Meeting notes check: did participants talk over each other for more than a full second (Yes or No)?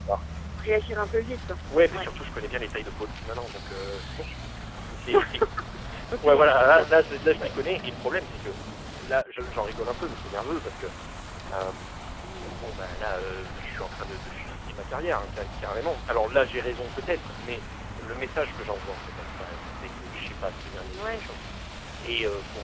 Yes